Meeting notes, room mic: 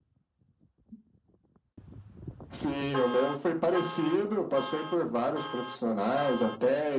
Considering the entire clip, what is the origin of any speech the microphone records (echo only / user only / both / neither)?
echo only